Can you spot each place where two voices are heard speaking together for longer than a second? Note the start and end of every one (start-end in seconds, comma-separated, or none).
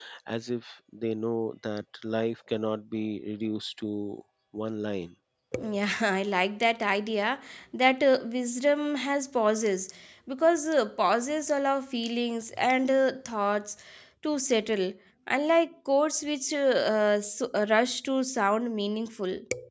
none